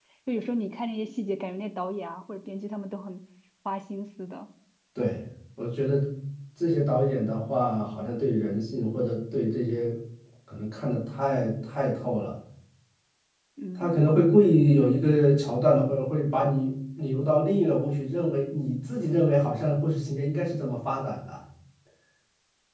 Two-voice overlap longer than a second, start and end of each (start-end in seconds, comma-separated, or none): none